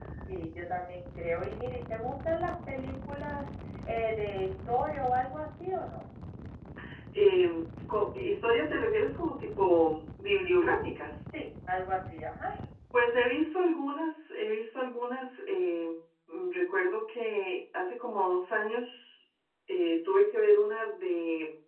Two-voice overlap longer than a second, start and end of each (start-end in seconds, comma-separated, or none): none